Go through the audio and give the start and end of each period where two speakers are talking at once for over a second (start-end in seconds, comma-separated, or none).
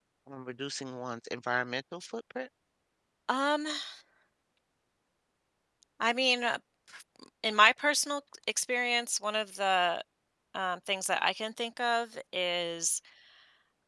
none